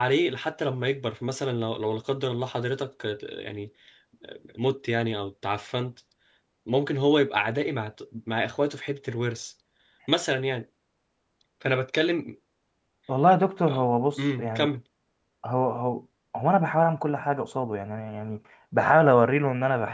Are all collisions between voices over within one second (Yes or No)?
Yes